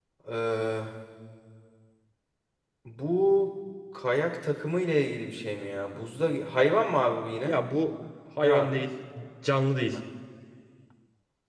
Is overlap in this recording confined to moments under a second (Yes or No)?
Yes